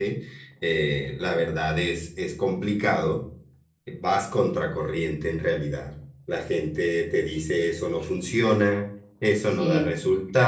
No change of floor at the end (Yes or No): Yes